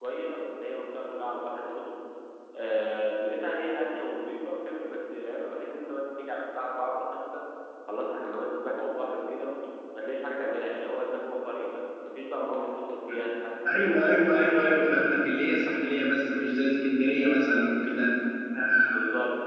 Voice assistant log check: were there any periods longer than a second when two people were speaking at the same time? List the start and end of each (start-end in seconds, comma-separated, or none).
13.8-15.1